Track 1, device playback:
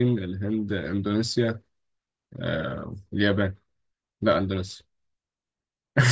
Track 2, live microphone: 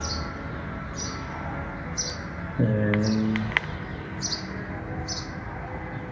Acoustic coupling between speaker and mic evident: No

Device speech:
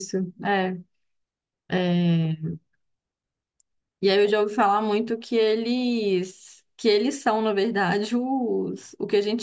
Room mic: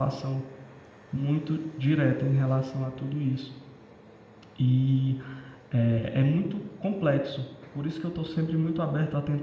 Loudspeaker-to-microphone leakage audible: No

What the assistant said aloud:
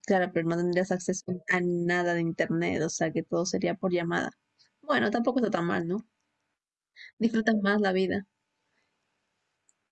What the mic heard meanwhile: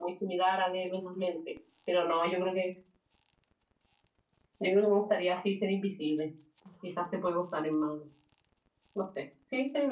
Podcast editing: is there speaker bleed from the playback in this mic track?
No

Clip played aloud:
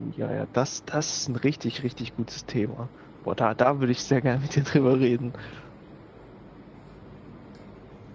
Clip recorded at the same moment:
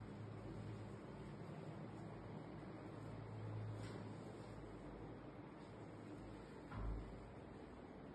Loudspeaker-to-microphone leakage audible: No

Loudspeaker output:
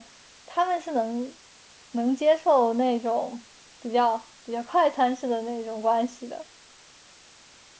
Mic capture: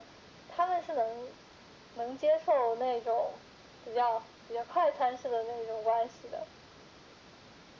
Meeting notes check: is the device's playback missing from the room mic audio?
No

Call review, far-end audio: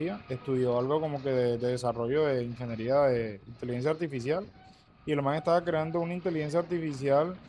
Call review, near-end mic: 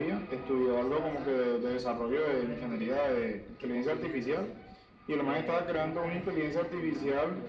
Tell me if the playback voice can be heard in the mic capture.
Yes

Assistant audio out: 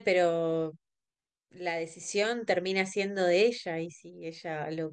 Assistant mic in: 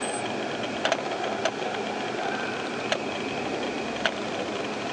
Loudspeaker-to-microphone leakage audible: No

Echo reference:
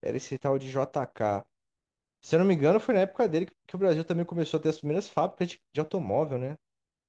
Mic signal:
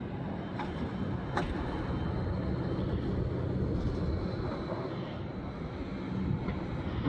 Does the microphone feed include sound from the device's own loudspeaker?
No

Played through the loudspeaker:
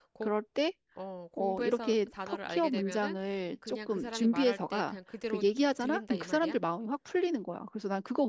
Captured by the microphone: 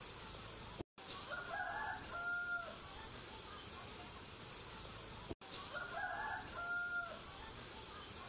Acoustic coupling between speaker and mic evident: No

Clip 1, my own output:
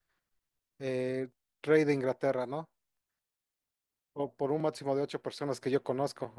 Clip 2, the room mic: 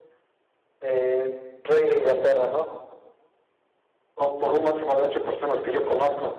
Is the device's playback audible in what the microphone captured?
Yes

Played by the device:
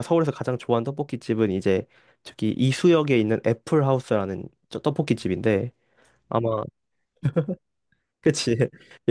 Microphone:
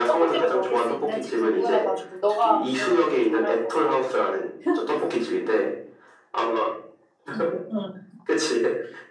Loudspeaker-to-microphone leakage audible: Yes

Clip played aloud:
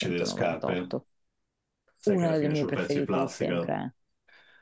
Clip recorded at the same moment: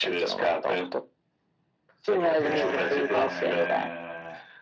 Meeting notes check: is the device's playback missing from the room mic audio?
No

